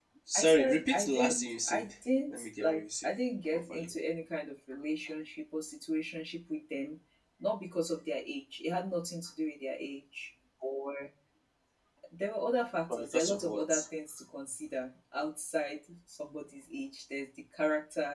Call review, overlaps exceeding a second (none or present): present